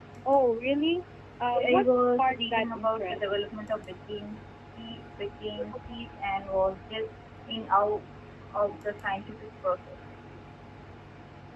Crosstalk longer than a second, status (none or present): present